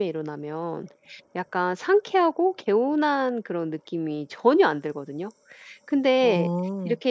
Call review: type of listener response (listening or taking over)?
listening